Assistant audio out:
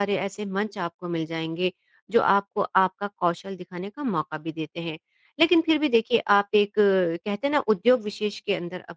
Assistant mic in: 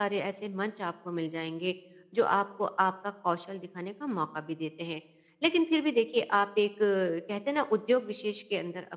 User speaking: No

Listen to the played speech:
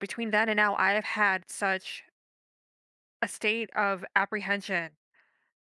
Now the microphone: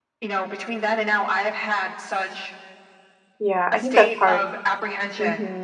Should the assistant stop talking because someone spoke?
Yes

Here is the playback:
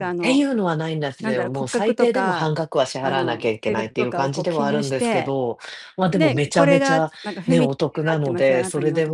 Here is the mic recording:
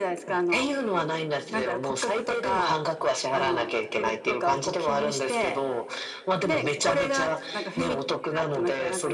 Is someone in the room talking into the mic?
No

